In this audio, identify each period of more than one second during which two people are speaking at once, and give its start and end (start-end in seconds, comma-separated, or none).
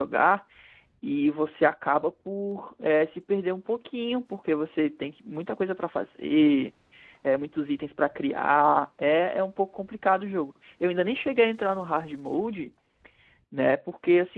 none